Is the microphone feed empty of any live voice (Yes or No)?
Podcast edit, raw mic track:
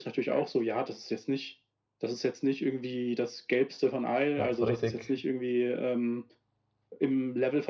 No